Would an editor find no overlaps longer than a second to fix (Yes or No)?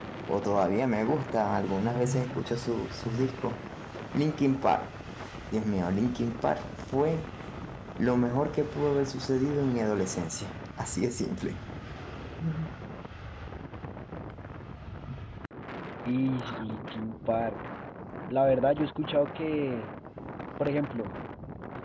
Yes